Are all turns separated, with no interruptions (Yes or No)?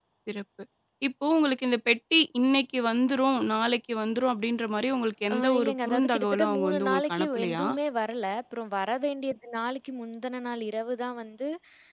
No